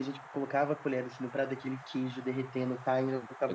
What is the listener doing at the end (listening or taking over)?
taking over